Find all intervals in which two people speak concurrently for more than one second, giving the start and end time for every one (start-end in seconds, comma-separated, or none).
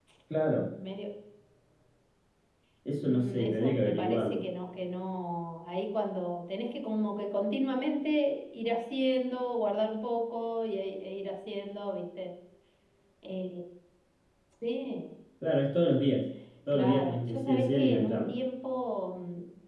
3.0-4.5, 16.7-18.4